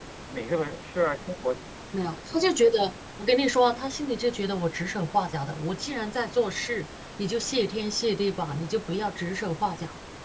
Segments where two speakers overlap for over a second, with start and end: none

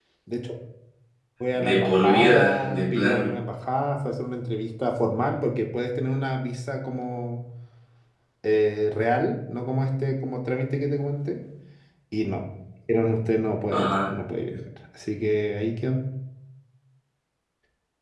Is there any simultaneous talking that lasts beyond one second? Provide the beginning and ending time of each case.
1.6-3.3

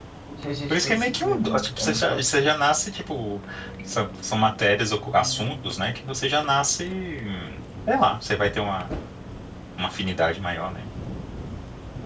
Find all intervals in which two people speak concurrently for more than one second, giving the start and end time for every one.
0.7-2.3

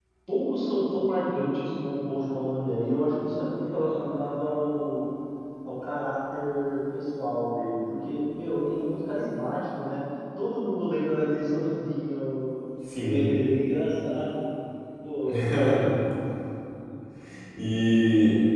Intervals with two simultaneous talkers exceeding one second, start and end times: none

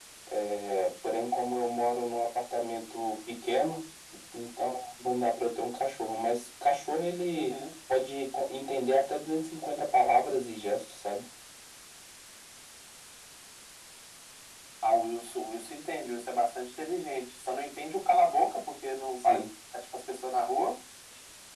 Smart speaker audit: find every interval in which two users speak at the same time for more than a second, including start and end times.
none

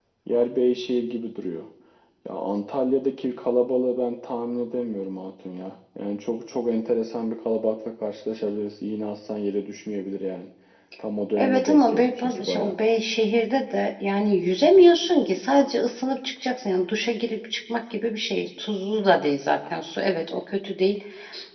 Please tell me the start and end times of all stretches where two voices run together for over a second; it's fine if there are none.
11.4-12.8

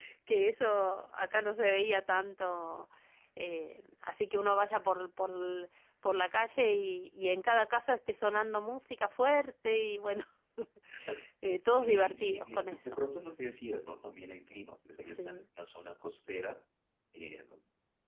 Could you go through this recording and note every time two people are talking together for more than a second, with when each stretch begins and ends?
11.6-13.0

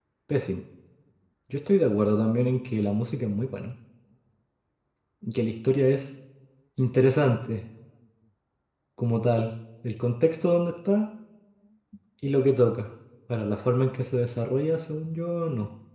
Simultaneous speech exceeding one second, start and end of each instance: none

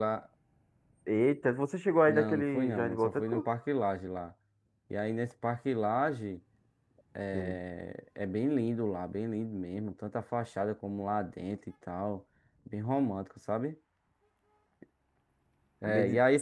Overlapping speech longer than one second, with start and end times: 2.0-3.5

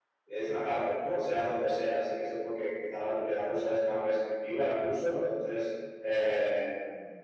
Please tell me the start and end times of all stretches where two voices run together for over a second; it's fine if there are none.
none

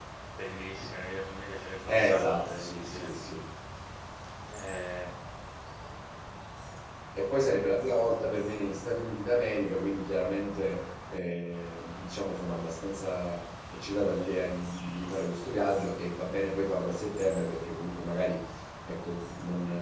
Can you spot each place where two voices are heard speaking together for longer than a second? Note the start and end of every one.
1.9-3.1

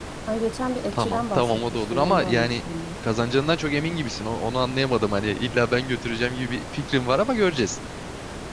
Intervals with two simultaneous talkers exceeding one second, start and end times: 0.9-2.6

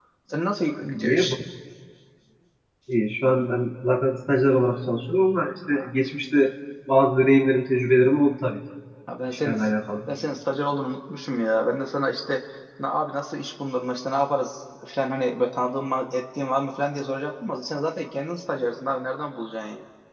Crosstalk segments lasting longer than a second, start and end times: none

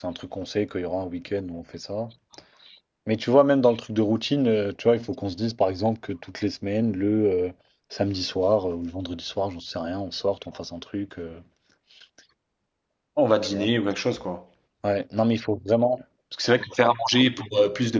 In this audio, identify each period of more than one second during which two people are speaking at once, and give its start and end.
none

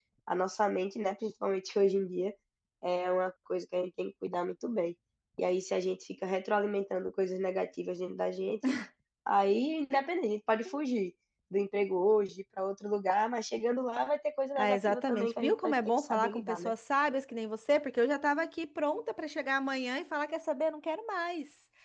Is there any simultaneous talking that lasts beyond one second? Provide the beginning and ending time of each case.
14.6-16.7

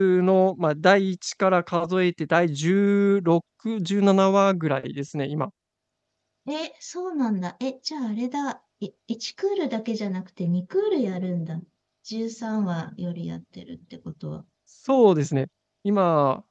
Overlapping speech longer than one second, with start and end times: none

